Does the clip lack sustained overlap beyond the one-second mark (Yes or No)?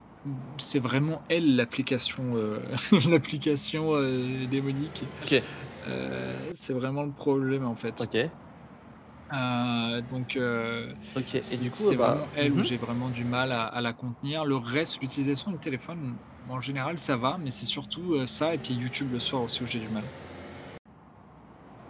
No